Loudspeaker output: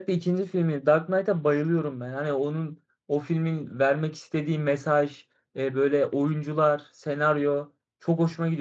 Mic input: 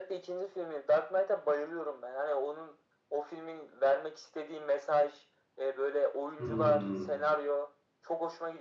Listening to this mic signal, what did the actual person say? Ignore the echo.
Hmm.

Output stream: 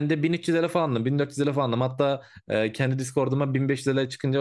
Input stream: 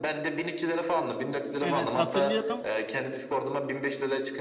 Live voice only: Evet hatırlıyorum.

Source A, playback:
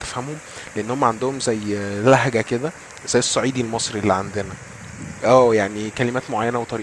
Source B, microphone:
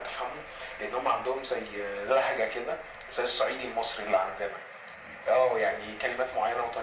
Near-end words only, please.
none

